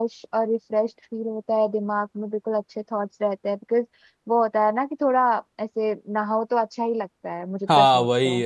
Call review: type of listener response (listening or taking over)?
taking over